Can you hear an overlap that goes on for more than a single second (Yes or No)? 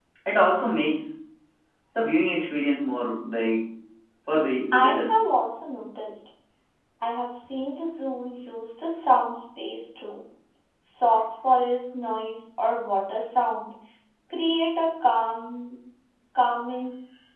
No